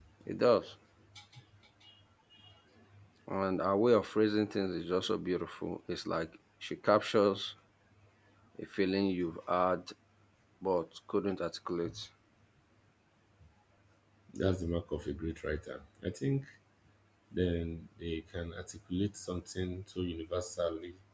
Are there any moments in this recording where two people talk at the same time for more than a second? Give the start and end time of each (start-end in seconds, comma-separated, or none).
none